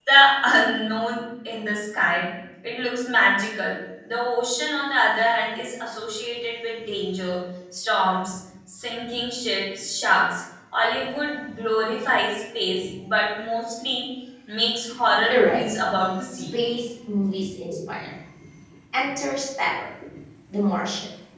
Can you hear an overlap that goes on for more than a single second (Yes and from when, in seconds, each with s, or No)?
No